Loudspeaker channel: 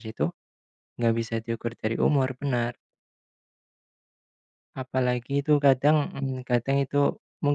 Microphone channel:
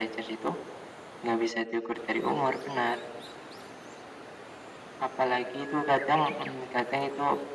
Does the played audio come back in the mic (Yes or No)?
Yes